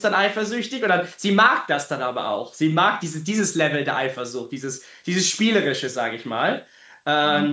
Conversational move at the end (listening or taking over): listening